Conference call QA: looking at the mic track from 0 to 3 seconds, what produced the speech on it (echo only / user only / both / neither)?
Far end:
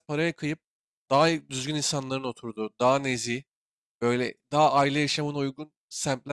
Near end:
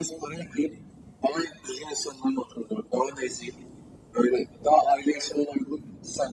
echo only